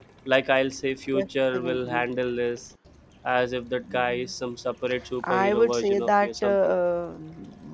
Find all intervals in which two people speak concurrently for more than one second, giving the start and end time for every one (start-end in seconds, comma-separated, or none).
5.3-6.7